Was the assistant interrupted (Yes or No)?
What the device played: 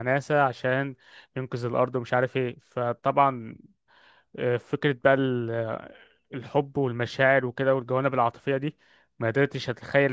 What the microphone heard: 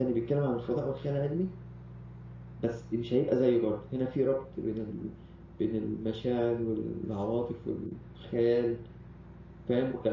Yes